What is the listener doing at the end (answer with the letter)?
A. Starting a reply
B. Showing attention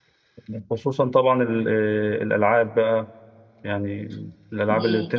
B